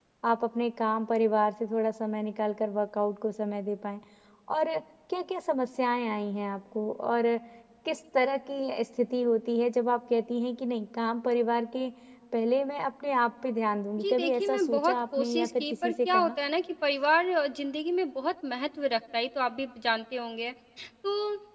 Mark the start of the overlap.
14.0 s

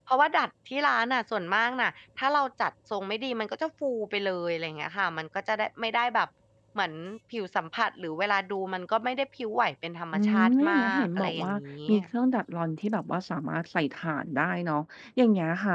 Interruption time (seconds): 10.1 s

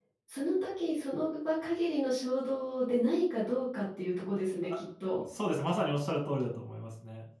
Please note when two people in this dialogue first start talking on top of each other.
none

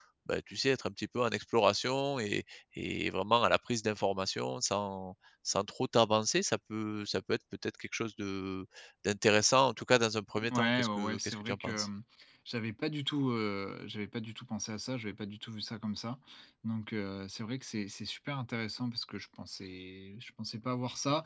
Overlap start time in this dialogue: 10.4 s

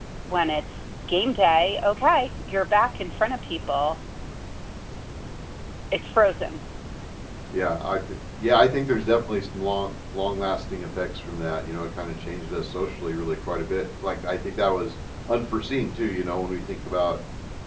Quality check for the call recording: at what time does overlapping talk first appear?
none

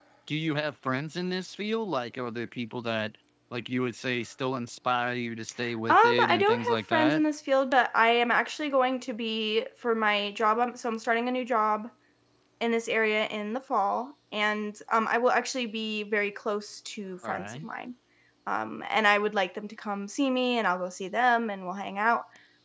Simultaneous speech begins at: 5.9 s

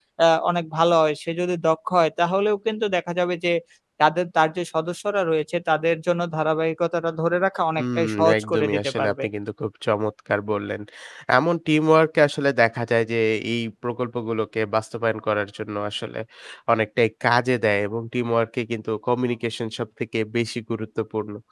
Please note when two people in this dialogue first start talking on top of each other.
7.8 s

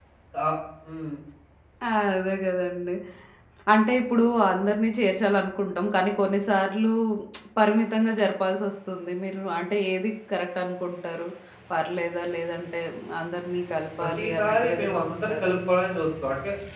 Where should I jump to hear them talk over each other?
14.0 s

